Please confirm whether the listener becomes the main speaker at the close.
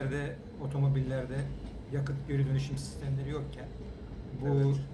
No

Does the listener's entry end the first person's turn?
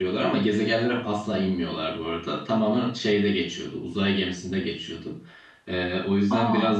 No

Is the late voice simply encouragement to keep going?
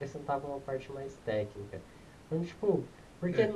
Yes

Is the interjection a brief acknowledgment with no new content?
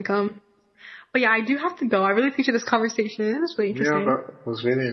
No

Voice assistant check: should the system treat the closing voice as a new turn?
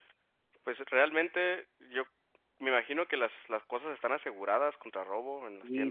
Yes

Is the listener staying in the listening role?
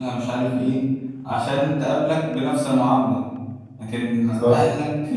Yes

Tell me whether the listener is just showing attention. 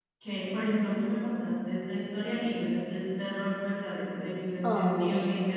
Yes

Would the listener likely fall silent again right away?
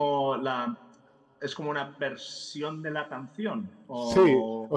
No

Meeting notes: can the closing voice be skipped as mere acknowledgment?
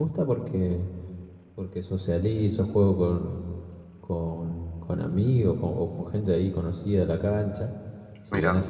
Yes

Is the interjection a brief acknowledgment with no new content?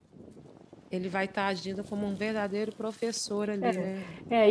No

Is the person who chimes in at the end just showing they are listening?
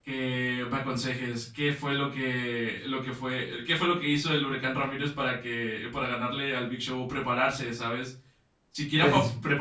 Yes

